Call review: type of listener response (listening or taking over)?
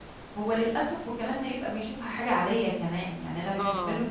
listening